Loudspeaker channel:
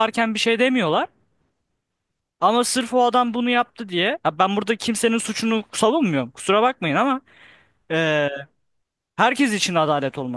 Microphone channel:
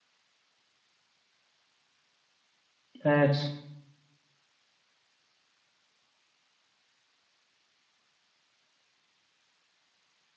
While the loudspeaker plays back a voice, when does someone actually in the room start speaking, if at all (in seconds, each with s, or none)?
3.0 s